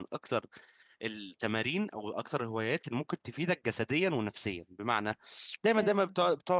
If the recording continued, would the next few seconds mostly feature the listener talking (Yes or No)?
No